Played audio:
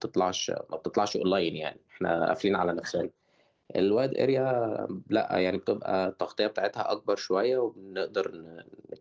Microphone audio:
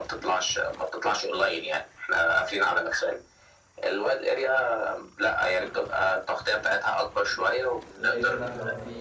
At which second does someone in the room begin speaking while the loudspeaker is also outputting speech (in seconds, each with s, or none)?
8.0 s